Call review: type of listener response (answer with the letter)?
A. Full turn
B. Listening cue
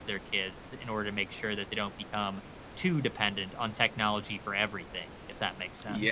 A